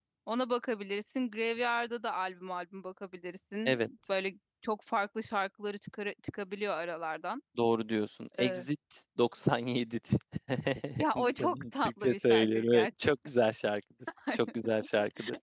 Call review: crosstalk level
present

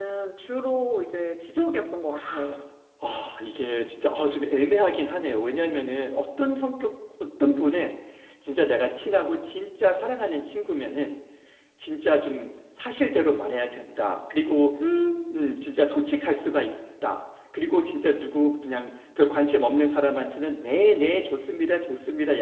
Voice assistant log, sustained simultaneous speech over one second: none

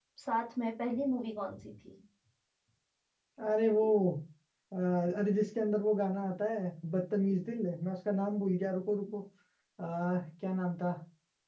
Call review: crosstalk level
none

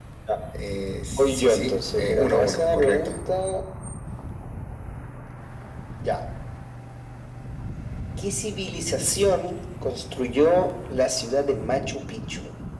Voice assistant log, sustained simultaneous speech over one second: present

